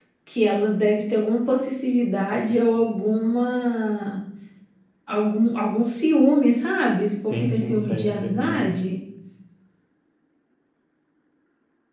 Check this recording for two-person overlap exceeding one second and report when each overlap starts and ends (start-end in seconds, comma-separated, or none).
7.2-8.7